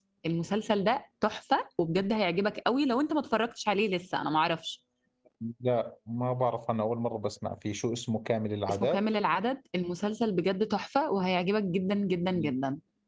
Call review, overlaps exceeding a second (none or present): none